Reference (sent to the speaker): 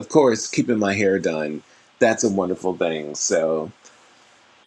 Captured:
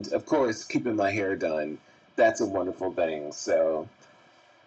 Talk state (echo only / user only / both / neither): echo only